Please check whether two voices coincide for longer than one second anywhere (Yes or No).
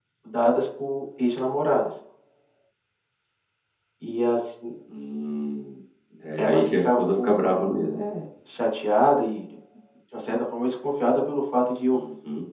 Yes